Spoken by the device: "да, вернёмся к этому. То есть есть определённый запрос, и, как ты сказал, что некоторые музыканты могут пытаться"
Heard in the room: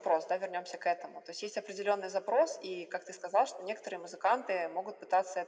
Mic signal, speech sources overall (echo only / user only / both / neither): echo only